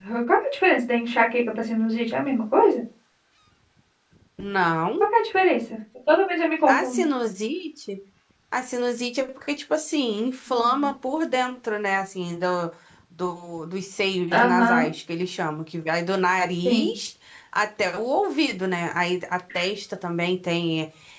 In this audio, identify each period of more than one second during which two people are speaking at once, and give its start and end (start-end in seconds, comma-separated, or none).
none